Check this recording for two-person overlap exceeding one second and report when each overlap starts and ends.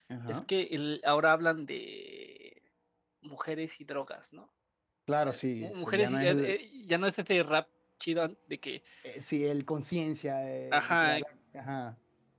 5.3-6.6

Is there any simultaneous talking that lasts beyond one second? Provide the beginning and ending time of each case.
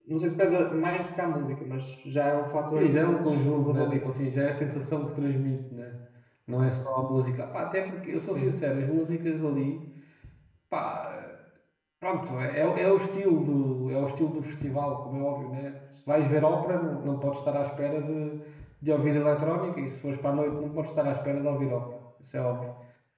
2.8-4.1

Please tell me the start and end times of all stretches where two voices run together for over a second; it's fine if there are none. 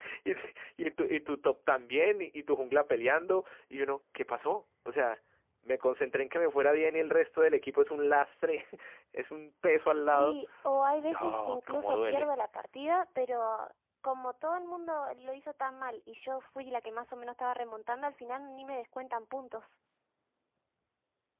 11.0-12.3

